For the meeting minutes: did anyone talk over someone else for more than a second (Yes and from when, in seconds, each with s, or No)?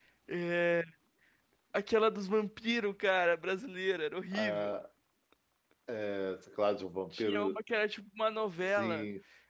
No